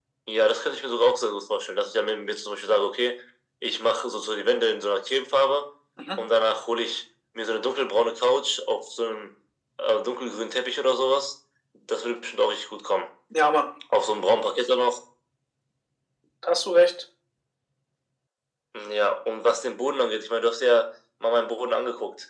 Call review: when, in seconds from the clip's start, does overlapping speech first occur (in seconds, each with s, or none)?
none